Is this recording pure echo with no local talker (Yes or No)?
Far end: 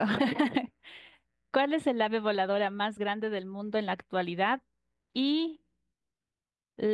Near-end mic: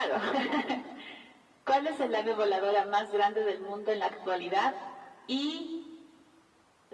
Yes